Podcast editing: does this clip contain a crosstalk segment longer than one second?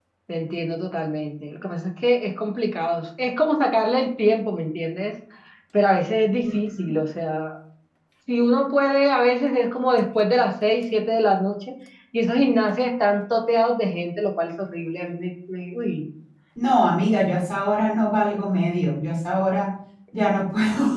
No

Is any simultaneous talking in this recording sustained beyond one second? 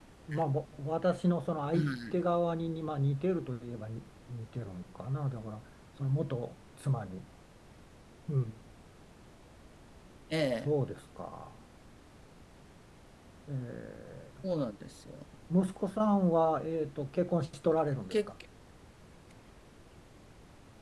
No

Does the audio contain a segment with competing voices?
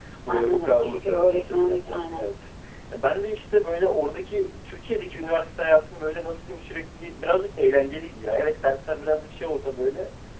Yes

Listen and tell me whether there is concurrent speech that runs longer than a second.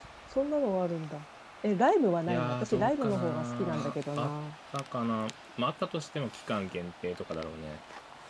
Yes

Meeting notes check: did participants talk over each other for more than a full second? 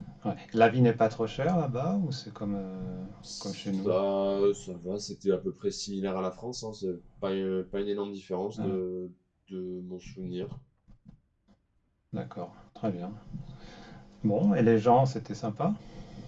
No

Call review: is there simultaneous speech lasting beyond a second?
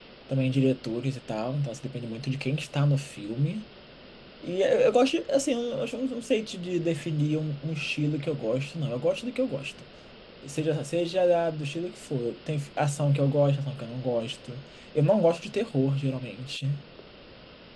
No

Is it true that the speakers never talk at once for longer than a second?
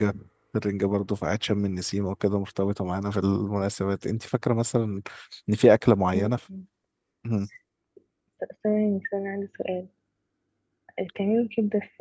Yes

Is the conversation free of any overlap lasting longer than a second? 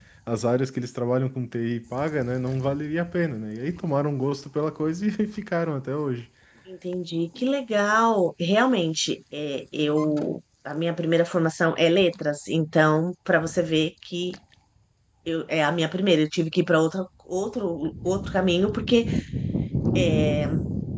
Yes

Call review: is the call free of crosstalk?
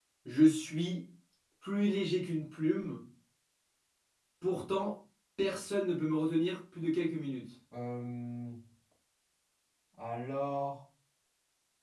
Yes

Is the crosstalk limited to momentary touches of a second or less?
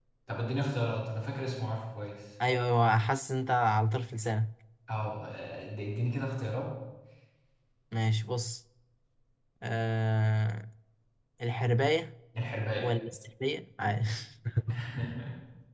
Yes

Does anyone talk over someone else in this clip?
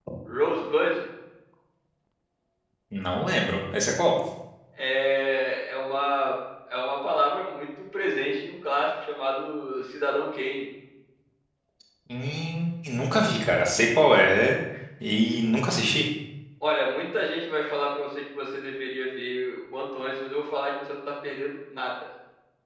No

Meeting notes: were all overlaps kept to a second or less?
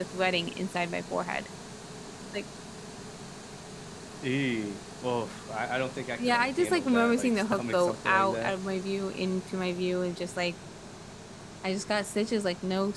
No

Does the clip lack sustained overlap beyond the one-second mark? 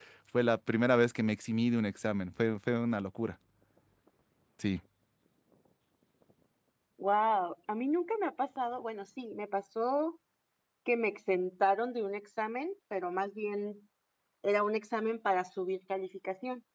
Yes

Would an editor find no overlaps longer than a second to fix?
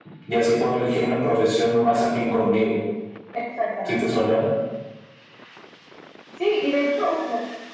Yes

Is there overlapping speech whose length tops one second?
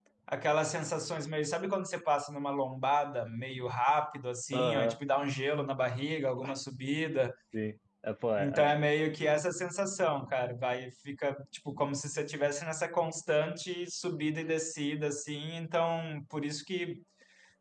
No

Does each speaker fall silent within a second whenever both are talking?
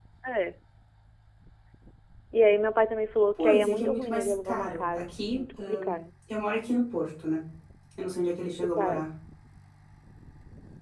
No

